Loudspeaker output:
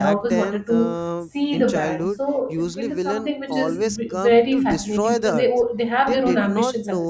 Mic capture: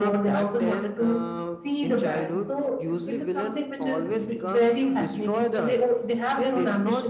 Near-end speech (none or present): none